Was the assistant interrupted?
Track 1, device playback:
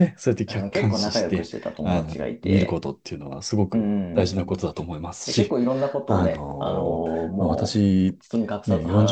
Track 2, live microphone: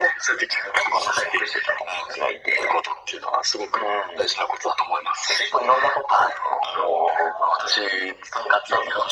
No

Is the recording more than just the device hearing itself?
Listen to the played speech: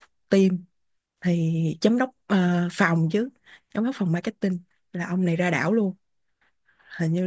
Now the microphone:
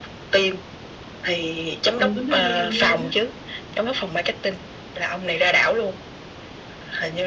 Yes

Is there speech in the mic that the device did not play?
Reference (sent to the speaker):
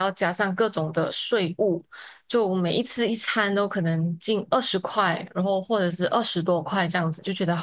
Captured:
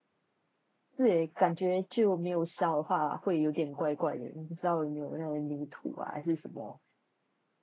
Yes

